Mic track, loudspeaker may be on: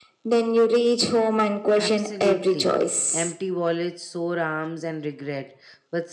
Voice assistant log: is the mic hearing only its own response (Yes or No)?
No